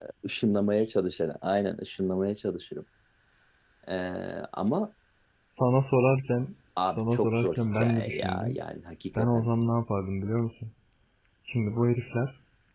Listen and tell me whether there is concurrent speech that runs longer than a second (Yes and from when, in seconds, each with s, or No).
Yes, from 7.0 s